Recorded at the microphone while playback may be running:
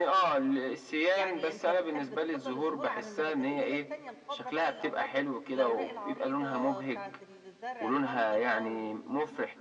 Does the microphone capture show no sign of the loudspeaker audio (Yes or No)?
No